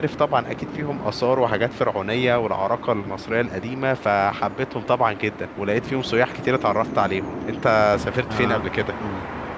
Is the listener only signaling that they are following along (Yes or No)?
No